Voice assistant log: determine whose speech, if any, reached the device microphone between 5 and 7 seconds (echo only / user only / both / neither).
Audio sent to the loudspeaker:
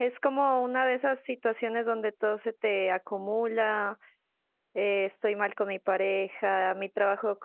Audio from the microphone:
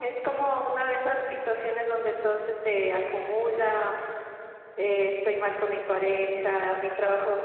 echo only